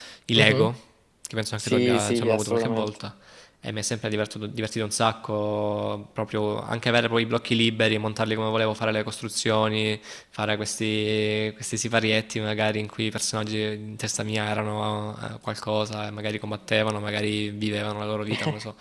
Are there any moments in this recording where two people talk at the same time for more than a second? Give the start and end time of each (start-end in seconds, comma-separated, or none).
1.6-3.0